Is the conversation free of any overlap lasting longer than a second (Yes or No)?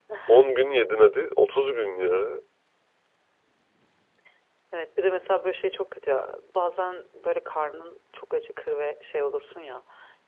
Yes